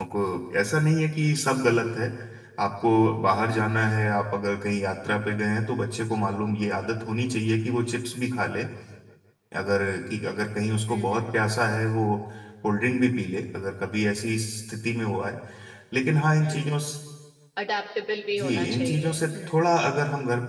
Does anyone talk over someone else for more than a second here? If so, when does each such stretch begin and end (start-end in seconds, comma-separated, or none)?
18.4-19.7